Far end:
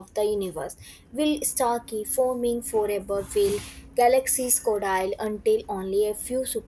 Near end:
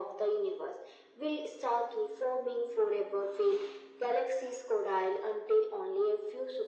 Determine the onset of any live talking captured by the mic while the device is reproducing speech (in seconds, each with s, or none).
none